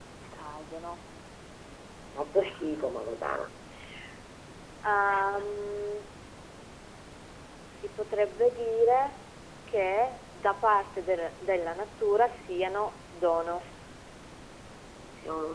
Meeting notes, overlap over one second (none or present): none